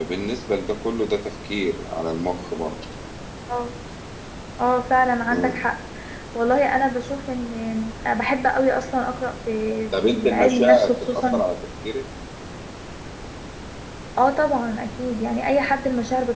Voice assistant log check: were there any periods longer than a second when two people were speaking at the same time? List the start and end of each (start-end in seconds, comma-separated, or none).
10.0-11.4